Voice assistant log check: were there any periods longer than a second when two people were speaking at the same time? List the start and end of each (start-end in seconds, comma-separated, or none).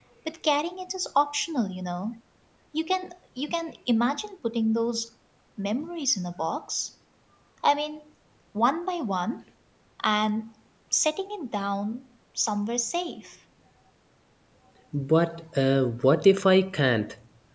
none